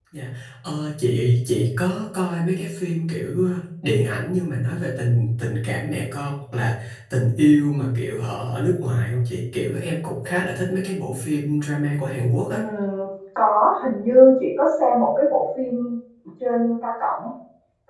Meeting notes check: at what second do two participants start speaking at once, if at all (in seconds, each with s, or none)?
none